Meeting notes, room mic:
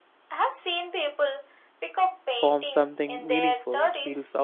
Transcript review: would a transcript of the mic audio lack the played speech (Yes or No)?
No